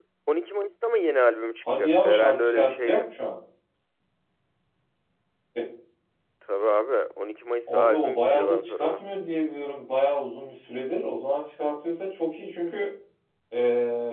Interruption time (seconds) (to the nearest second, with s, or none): 2 s